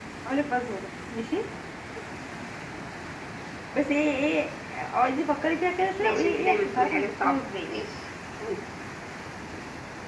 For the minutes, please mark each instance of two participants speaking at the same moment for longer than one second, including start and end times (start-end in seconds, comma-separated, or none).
6.0-7.7